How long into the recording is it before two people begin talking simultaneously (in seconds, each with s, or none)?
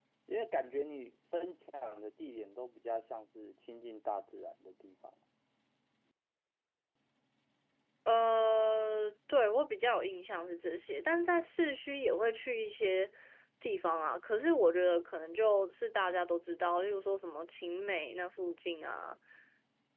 none